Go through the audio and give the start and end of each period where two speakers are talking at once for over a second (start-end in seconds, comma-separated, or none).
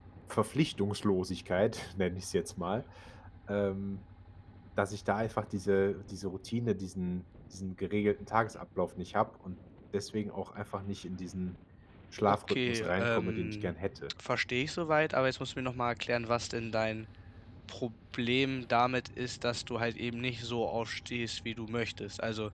12.3-13.7